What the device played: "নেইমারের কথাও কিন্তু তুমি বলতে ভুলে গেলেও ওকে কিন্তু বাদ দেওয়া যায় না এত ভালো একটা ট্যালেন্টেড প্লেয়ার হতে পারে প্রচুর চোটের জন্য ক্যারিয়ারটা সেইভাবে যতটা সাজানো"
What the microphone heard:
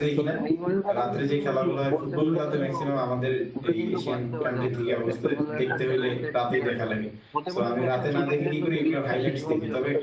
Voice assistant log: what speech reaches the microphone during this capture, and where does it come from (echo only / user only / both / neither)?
both